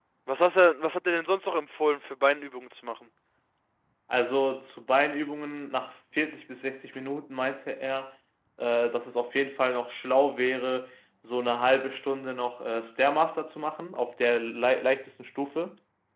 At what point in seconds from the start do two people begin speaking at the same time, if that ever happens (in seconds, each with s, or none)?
none